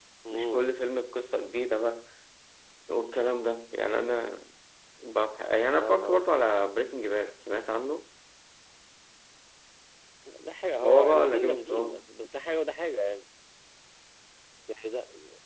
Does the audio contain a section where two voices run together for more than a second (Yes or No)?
Yes